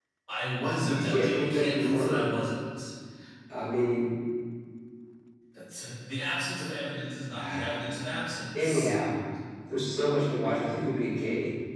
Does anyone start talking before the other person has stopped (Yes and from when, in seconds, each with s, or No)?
Yes, from 0.9 s